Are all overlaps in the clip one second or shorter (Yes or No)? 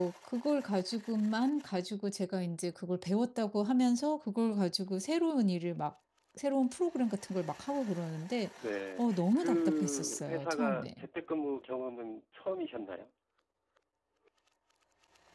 No